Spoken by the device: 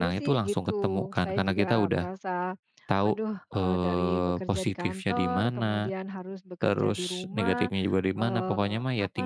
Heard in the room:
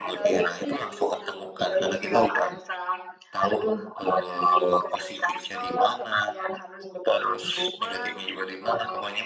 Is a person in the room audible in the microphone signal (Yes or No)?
No